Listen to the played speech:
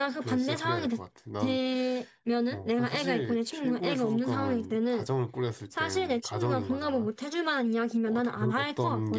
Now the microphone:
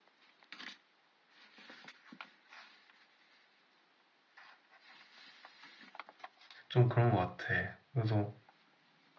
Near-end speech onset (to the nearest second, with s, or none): 7 s